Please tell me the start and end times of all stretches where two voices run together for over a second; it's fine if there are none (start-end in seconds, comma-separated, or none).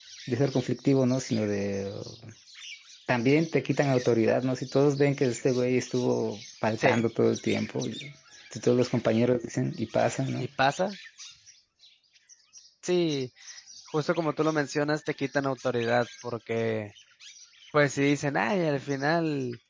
none